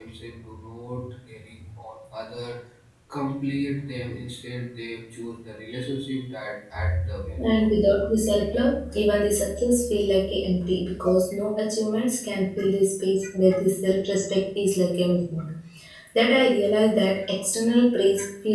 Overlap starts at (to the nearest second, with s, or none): 7 s